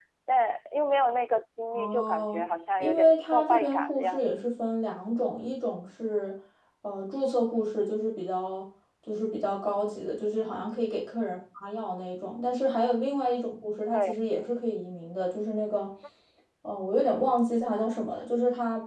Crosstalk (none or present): present